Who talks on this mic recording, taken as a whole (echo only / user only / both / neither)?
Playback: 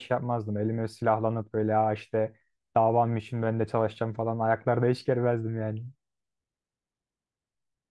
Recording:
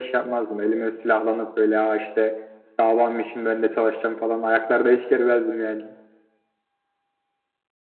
echo only